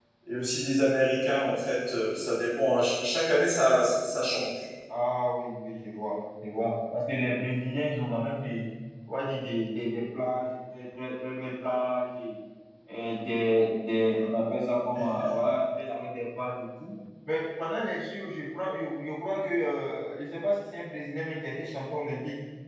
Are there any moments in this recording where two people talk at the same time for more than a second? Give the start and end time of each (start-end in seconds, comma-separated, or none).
none